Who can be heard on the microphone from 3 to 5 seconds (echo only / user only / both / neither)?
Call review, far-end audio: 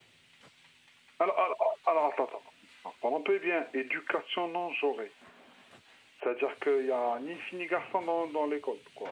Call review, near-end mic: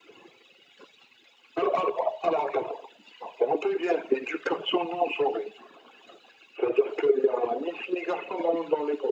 echo only